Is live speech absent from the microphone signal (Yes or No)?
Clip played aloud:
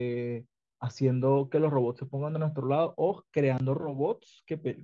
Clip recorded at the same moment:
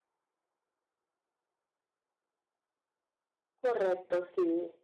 No